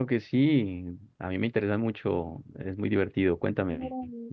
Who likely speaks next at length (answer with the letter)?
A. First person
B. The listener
B